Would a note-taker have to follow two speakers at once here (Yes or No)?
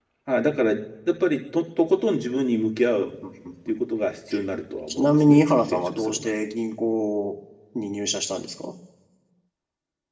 Yes